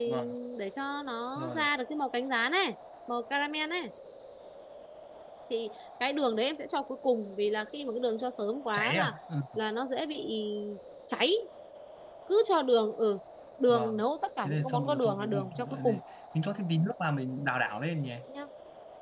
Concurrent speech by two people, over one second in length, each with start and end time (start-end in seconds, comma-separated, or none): 14.4-16.0